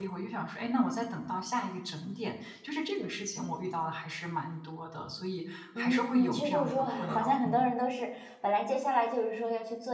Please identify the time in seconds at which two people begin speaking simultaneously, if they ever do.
6 s

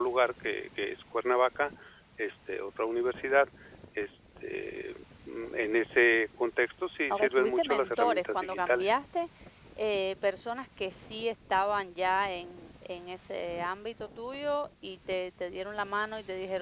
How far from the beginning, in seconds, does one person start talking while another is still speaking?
7 s

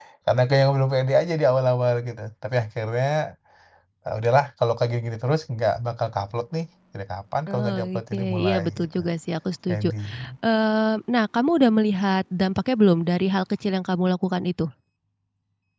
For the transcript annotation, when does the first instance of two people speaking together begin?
8 s

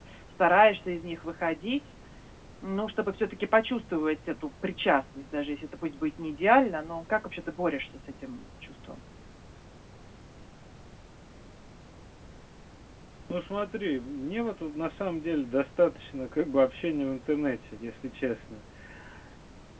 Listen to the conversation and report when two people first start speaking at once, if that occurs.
none

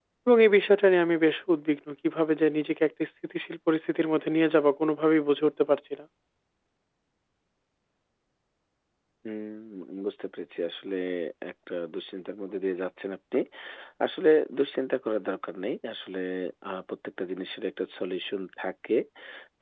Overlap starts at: none

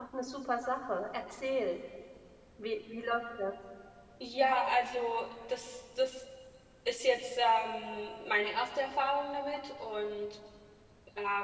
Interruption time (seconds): none

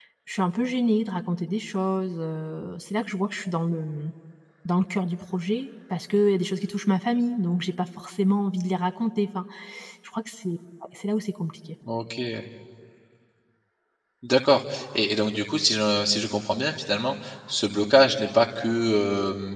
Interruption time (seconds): none

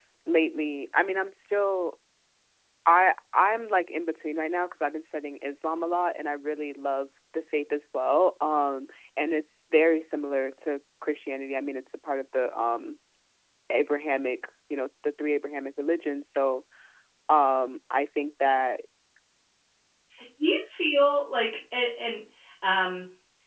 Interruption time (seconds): none

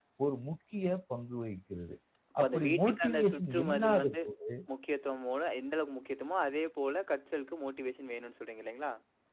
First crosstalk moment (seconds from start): 2 s

